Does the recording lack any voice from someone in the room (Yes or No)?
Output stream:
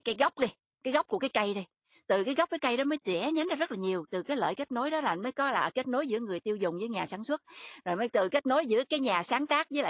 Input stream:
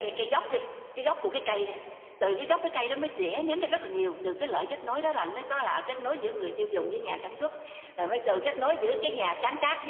Yes